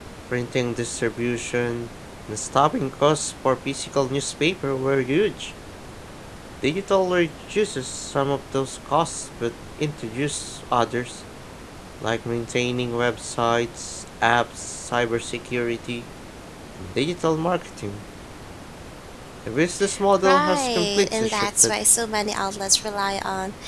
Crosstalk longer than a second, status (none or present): present